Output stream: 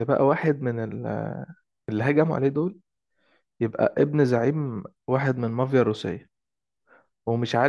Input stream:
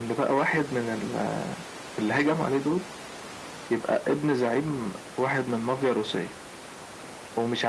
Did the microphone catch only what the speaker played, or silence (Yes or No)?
Yes